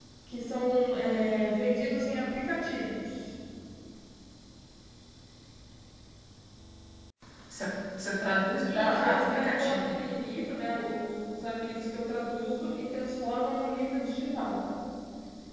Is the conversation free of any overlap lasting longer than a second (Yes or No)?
No